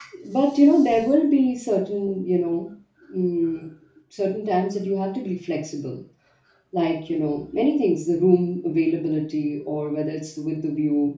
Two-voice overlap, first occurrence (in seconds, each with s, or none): none